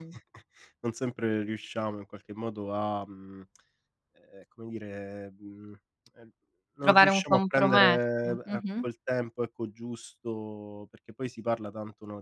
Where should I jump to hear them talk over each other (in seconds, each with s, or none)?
6.8 s